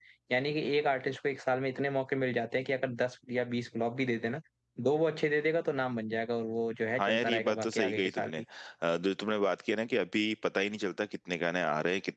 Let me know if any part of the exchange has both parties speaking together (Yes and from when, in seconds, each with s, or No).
Yes, from 7.0 s